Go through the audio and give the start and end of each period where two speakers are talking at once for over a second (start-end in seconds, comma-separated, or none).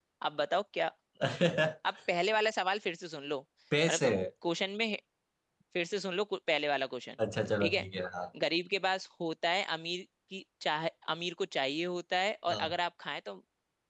none